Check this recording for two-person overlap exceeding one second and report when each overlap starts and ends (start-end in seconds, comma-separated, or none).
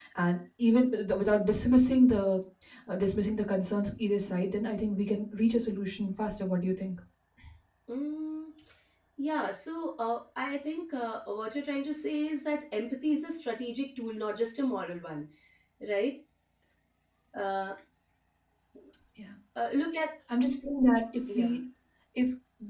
none